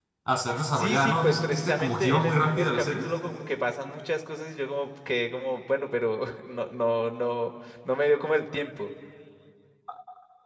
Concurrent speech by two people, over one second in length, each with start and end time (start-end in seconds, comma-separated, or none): 0.7-3.1